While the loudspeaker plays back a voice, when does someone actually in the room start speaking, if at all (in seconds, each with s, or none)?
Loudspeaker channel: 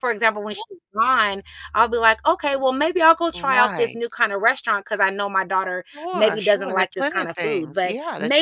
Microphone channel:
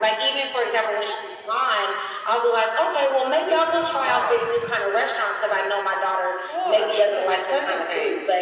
none